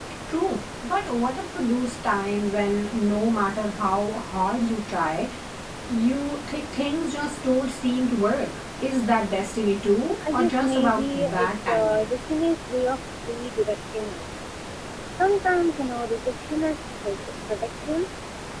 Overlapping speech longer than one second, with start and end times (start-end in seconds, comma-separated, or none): 10.3-12.1